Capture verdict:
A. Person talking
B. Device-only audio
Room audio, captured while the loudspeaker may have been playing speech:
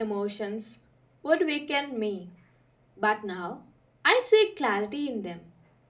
A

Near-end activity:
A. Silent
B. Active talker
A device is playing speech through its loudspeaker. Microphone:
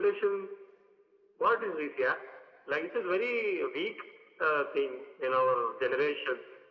A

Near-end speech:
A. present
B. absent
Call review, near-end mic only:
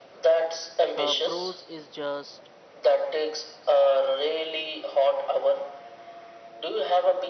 A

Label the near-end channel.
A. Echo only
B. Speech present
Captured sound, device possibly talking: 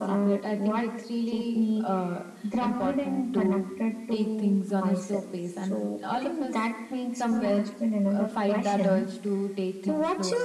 A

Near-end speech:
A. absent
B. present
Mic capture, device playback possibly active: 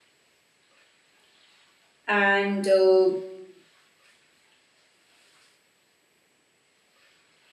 B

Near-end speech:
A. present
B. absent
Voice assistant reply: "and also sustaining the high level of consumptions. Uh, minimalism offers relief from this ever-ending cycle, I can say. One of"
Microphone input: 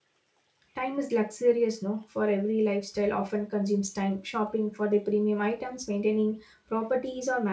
A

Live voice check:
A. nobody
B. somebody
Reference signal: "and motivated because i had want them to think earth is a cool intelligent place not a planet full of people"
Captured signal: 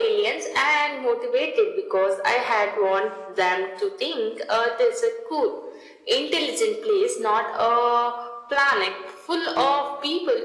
A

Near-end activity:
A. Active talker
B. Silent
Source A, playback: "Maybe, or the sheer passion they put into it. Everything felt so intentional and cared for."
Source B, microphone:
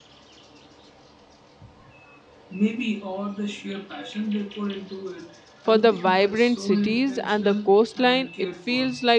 A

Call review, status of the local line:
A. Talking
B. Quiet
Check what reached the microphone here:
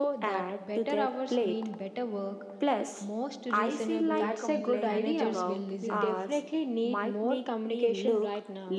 A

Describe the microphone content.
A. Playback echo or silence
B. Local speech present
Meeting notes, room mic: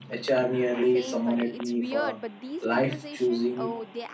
B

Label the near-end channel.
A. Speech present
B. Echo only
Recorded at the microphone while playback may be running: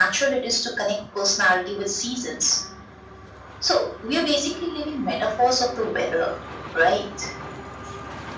B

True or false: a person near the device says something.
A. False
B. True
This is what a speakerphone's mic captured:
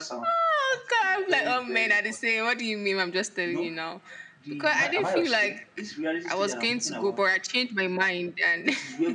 B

